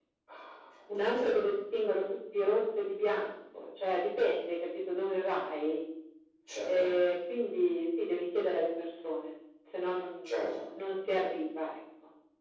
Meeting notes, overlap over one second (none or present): none